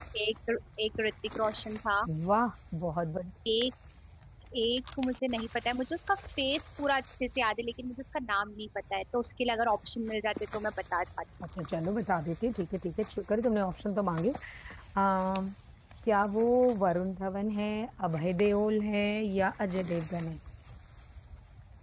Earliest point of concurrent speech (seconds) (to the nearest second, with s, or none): none